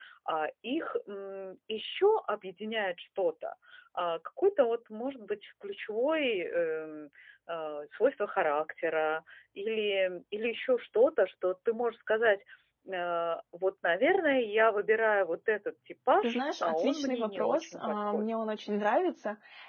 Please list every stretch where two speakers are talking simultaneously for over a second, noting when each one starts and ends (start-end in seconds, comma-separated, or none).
16.2-18.3